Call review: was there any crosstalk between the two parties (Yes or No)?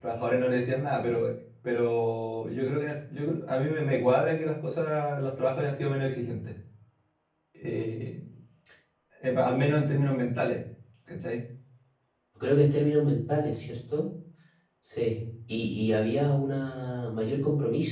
No